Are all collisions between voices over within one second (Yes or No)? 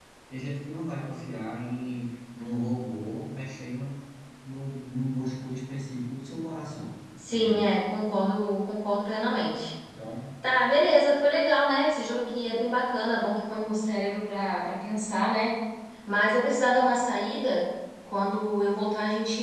Yes